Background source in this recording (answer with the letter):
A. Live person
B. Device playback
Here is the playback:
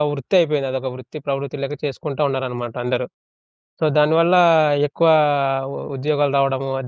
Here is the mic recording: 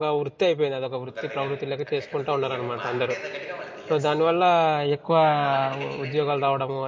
A